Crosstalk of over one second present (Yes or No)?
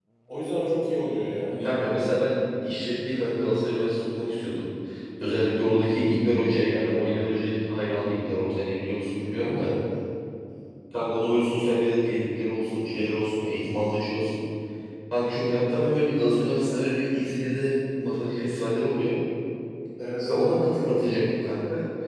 No